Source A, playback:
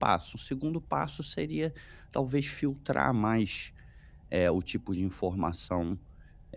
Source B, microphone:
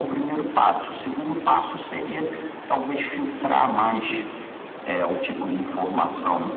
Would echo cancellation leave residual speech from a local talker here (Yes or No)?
No